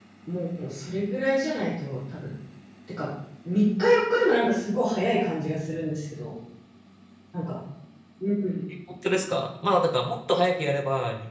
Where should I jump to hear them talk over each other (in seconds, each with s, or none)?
none